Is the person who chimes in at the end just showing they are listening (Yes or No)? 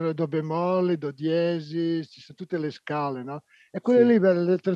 Yes